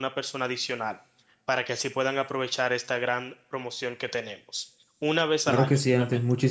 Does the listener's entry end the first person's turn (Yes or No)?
Yes